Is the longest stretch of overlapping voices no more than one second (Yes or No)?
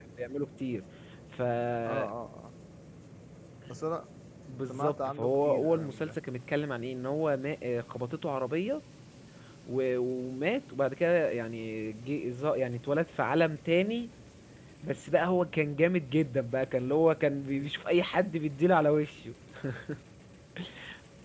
No